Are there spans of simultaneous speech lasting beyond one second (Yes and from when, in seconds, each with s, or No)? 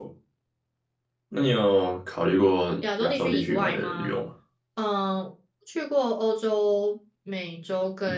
Yes, from 2.8 s